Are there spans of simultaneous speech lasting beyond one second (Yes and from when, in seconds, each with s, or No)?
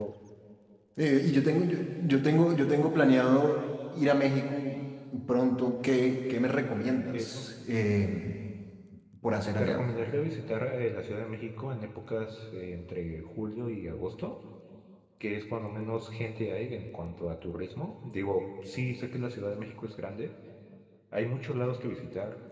No